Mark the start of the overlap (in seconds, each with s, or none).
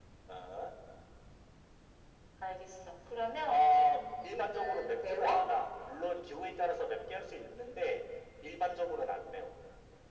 3.5 s